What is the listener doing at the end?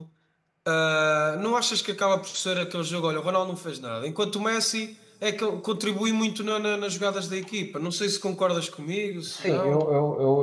taking over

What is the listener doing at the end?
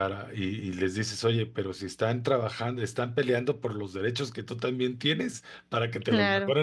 listening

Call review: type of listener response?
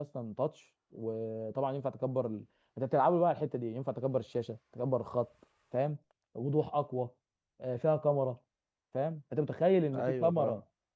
listening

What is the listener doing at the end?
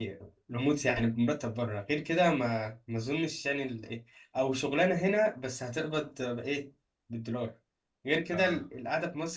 listening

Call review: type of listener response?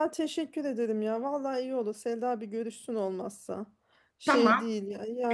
taking over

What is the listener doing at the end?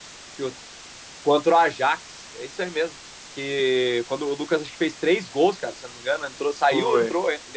listening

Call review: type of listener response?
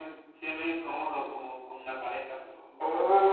taking over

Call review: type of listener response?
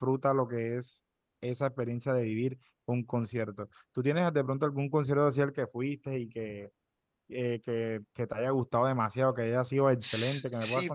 taking over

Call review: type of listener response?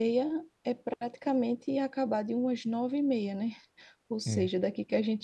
listening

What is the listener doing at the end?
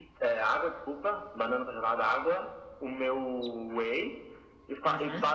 listening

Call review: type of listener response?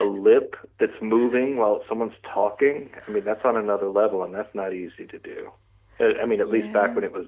listening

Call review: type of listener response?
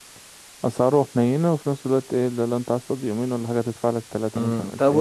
taking over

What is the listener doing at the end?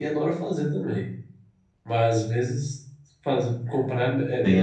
taking over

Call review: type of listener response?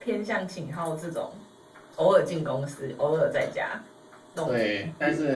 taking over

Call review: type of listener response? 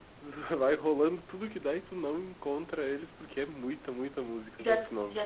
taking over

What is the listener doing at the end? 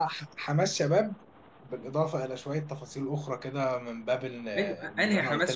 taking over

